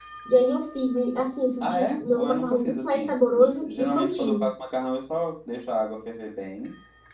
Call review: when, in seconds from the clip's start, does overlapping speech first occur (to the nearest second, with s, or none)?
2 s